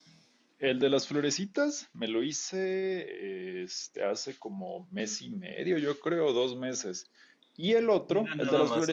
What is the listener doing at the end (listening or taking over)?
taking over